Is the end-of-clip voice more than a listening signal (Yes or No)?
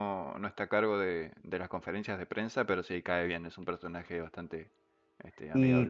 Yes